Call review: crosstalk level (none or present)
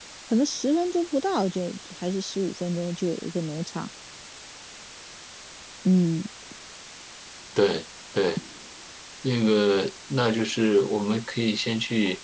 none